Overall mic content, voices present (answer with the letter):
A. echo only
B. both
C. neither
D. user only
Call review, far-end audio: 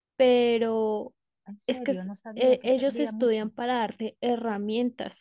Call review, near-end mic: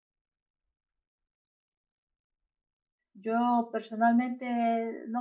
D